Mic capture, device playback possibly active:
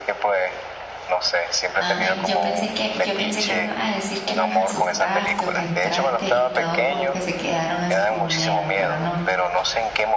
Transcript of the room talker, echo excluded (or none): ay, yo pensé que, yo pensé que me iba a decir que los asustaste o que entraste y todos como que se quedaron así con miedo, pero no.